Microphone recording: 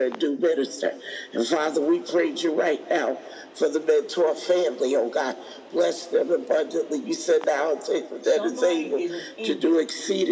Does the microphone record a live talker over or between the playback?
Yes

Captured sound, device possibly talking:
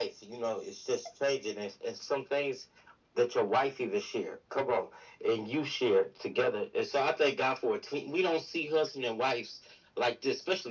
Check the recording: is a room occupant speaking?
No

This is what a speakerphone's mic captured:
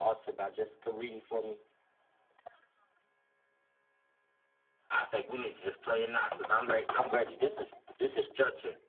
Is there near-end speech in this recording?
Yes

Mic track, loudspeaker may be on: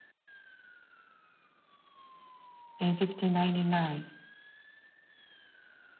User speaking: Yes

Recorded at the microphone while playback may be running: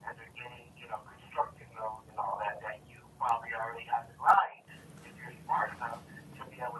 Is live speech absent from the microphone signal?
Yes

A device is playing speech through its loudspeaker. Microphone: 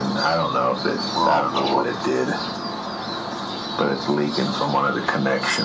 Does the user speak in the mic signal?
Yes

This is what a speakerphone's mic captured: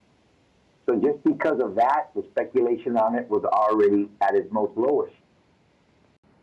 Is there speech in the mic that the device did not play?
Yes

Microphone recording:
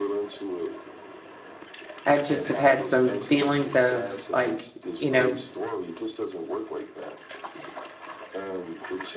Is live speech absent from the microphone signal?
No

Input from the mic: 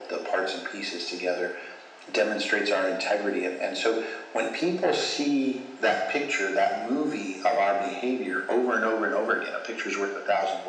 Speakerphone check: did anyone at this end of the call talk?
No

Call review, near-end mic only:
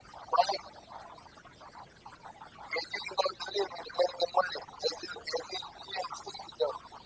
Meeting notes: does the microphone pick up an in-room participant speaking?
No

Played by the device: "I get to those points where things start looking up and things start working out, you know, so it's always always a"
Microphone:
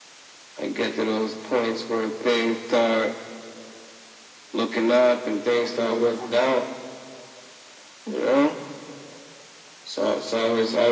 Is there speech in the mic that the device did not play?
No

